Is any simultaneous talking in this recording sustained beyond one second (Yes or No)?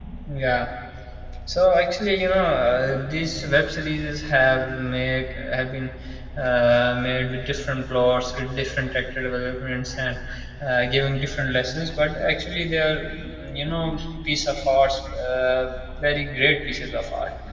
No